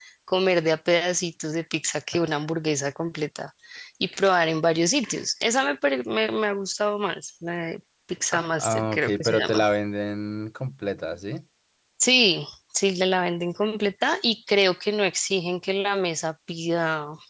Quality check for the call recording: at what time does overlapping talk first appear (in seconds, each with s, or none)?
8.3 s